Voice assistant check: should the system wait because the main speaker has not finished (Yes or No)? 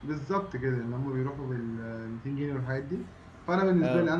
Yes